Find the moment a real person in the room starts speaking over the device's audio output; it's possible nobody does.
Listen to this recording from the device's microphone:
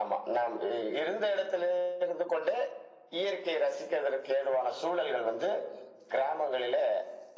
none

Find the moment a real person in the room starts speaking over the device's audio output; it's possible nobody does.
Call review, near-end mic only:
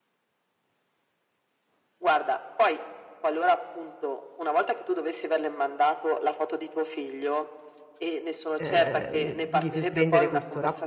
9 s

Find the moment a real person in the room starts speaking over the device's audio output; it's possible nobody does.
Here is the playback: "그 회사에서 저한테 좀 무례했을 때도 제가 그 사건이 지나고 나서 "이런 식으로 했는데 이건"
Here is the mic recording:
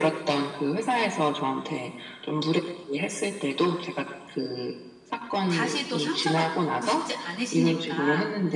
5 s

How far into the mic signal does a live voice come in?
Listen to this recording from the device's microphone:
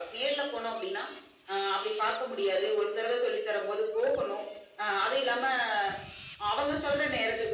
none

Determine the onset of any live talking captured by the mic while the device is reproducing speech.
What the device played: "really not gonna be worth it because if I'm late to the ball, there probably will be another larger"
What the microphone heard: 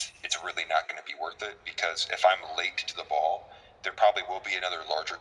none

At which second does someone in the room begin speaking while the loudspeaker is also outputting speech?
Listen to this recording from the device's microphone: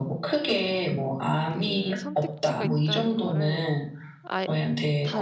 1 s

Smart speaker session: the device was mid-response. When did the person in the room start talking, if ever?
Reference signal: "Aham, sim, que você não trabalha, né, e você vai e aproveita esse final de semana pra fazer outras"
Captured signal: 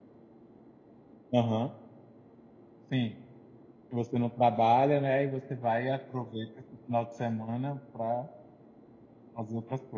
none

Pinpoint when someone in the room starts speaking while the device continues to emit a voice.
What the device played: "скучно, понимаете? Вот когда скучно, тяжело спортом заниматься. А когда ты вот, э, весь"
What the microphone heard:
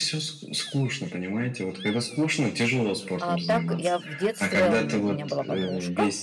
3 s

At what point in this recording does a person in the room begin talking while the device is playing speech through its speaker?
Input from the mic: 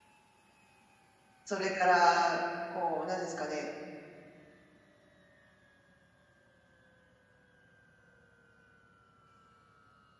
1 s

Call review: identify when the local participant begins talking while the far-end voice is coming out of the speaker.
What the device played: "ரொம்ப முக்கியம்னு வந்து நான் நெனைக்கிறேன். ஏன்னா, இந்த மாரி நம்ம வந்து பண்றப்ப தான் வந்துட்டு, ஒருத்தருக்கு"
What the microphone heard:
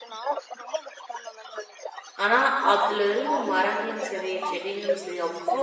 2 s

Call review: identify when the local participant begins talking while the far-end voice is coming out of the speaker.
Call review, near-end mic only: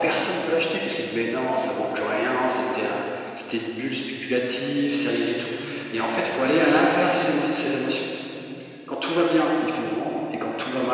none

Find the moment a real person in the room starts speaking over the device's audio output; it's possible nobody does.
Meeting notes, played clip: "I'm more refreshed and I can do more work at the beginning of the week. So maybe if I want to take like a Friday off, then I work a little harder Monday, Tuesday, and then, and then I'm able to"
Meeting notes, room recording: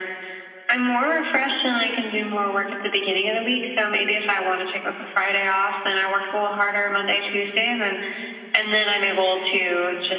none

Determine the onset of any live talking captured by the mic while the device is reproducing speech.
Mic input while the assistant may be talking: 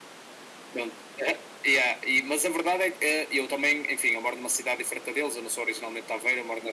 none

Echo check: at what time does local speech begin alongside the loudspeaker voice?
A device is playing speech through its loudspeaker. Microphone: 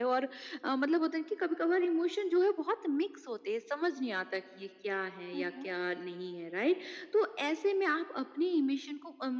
5 s

